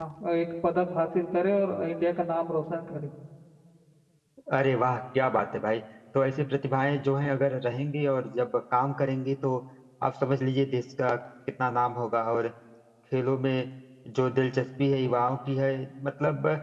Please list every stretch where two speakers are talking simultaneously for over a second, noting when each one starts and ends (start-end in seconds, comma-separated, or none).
none